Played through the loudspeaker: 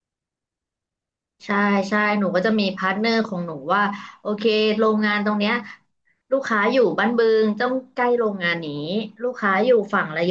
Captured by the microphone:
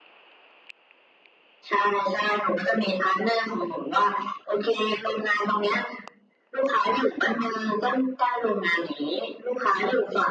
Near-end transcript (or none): none